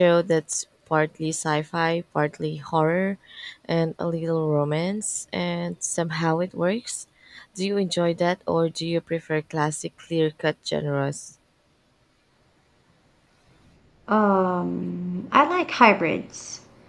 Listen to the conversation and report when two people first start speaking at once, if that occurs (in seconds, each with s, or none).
none